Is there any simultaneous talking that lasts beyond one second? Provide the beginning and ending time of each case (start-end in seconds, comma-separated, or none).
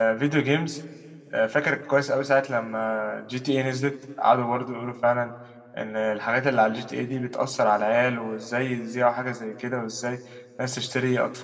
none